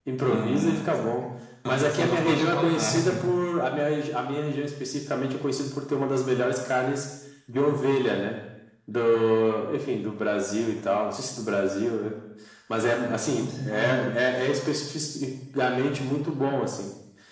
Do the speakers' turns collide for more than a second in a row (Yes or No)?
Yes